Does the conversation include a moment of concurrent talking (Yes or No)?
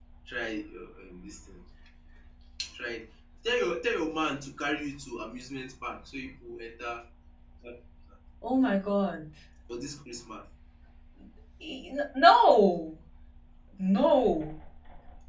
No